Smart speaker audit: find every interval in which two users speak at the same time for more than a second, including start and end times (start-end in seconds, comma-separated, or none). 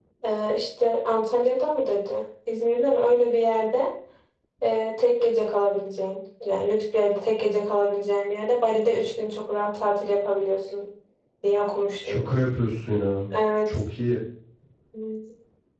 none